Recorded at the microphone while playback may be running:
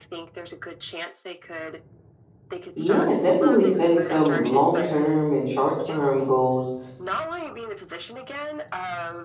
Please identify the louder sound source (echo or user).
user